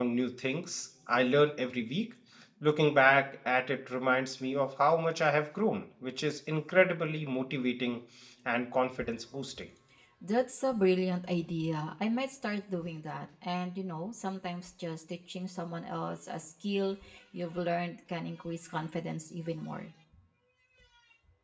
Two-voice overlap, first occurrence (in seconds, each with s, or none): none